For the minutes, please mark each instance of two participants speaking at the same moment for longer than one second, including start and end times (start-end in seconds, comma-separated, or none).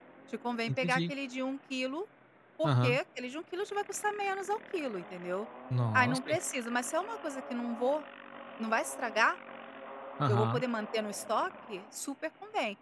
none